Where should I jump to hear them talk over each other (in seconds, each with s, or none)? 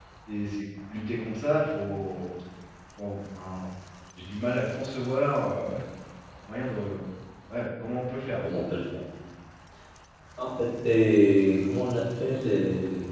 none